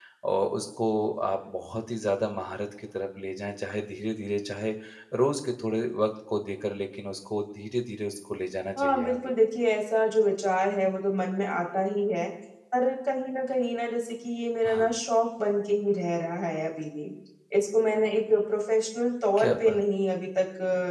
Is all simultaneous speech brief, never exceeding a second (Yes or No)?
Yes